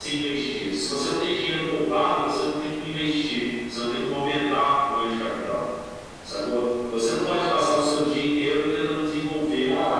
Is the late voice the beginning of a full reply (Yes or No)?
Yes